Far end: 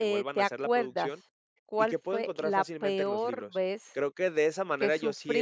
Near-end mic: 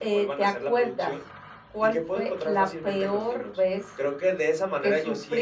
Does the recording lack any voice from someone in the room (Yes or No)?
Yes